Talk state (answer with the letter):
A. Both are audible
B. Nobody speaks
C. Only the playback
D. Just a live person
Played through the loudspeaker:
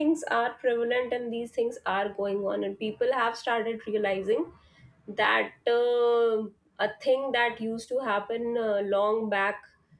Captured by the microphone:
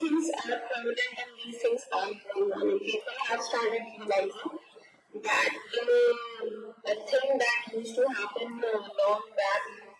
C